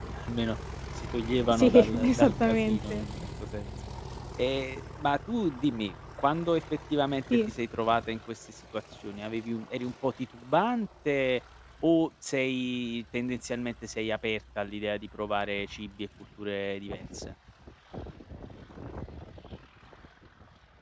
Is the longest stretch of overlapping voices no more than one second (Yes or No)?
No